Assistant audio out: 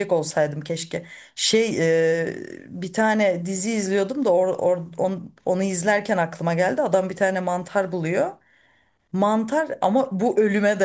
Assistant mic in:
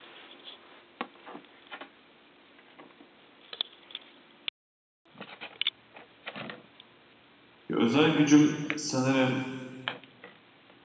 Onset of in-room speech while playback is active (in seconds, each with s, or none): 7.7 s